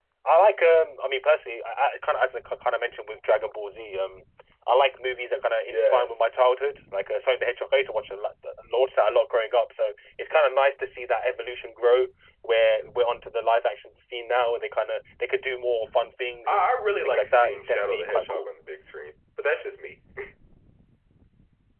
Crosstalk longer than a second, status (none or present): present